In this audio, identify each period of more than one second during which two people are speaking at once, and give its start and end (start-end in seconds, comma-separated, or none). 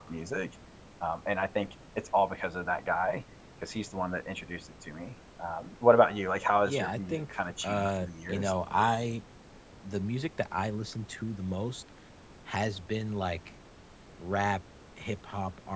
6.6-8.5